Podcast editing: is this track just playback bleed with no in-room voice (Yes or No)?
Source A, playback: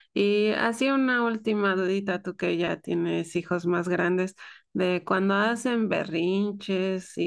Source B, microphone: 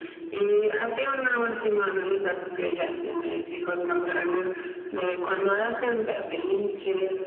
Yes